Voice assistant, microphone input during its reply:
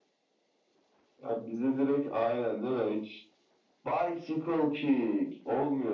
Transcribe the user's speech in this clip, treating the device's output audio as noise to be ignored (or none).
none